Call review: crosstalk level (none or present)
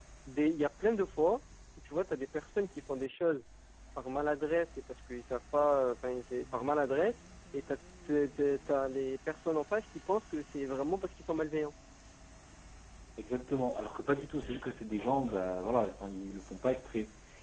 none